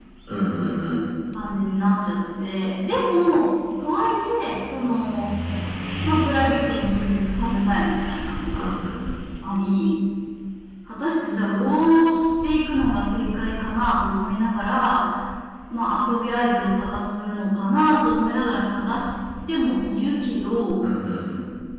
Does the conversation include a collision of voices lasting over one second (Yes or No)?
No